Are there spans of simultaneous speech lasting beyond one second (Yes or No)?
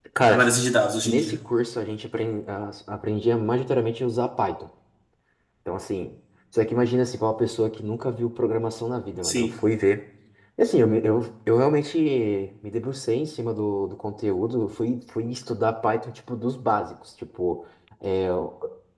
No